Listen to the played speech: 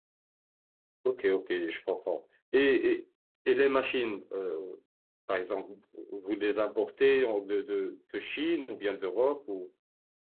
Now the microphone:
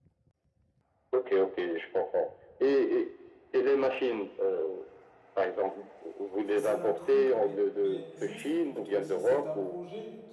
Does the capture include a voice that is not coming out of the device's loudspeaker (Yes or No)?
Yes